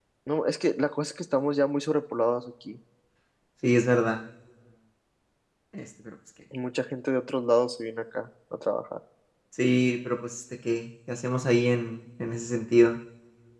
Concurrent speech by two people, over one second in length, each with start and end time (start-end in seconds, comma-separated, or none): none